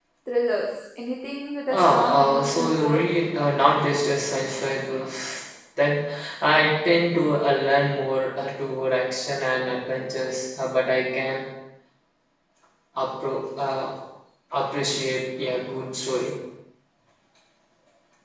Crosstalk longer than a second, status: present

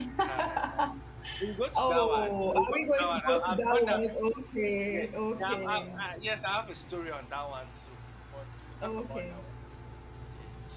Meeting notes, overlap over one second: present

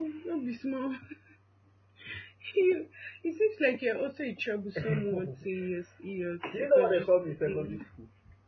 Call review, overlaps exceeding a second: present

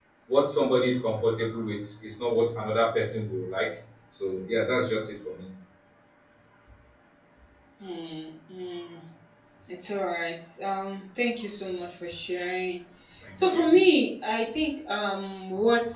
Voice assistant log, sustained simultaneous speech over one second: none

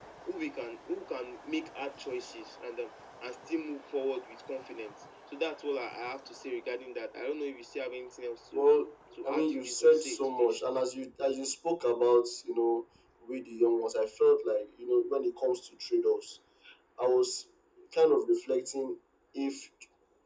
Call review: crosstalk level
present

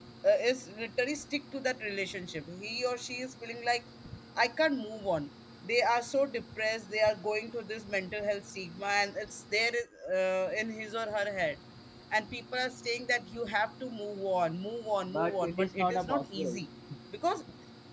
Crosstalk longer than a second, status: present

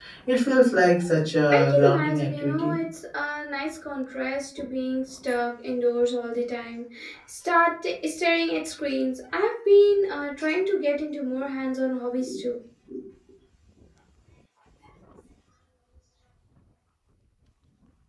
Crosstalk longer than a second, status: present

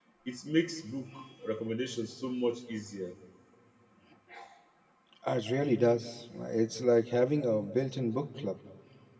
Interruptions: none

